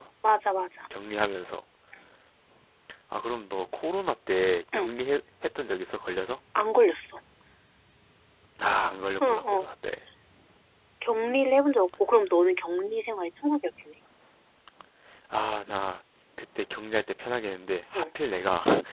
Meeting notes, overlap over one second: none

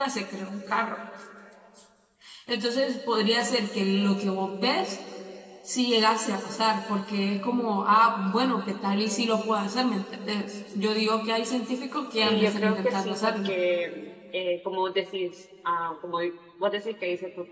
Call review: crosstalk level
present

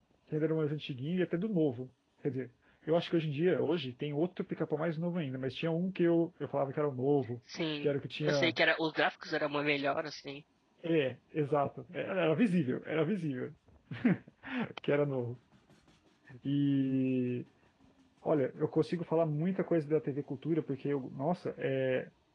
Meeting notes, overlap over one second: none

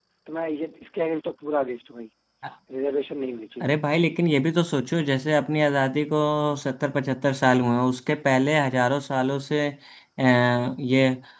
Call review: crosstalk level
none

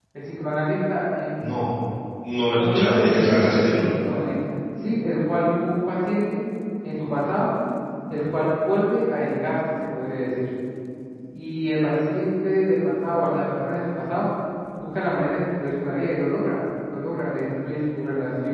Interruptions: present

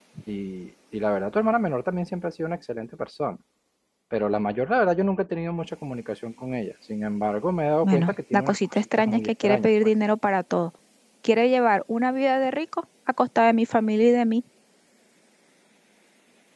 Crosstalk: present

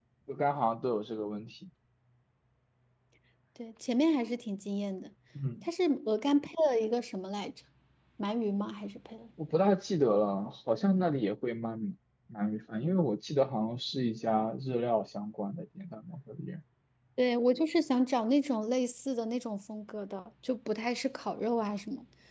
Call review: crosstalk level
none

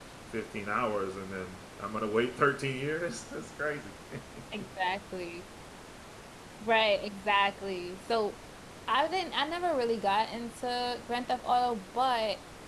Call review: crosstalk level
none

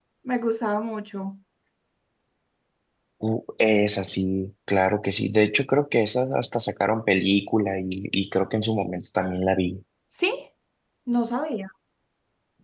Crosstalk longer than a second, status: none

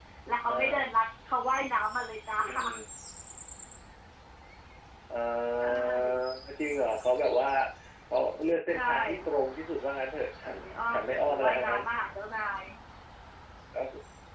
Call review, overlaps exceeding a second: present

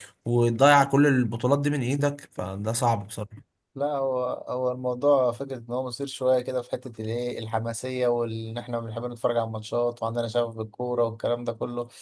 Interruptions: none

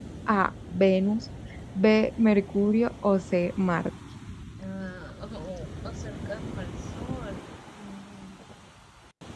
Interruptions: none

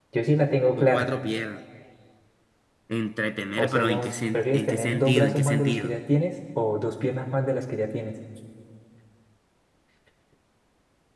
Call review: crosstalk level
present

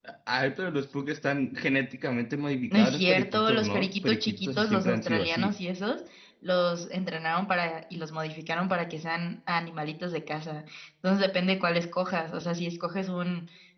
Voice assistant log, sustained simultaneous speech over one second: present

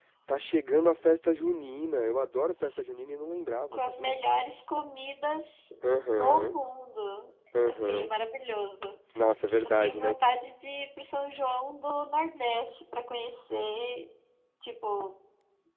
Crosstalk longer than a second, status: none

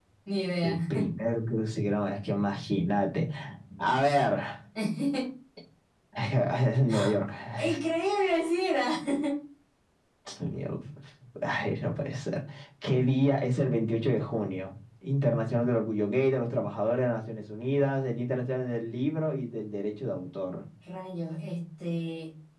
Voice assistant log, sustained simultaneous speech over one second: none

